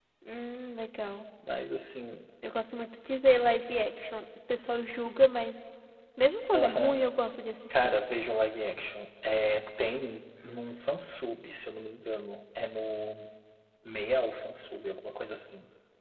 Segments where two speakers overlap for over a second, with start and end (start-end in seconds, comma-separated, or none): none